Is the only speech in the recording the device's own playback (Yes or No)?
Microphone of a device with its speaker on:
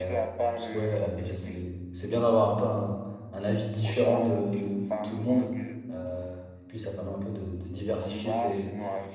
No